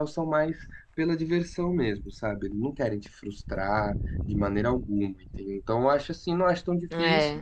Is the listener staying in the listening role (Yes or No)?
Yes